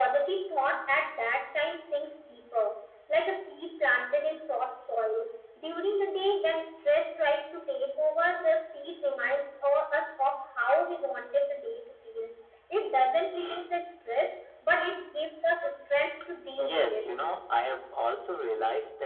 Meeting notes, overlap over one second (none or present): none